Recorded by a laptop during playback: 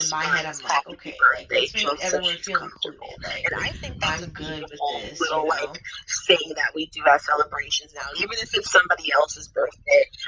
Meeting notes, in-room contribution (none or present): present